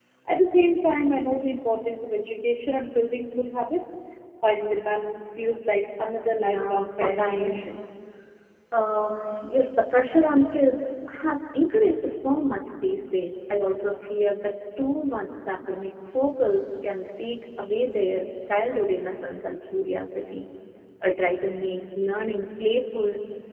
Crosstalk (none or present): present